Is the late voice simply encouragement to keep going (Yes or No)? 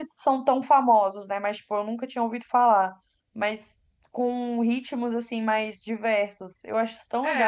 No